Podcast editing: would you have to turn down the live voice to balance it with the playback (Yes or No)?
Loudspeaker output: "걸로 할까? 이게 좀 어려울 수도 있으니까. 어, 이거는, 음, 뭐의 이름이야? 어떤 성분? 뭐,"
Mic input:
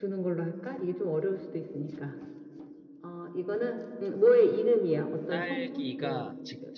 No